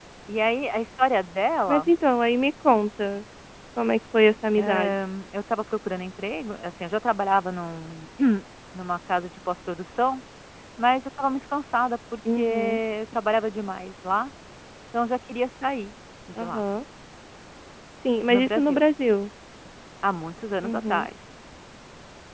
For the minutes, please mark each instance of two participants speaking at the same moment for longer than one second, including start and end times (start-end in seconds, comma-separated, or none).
none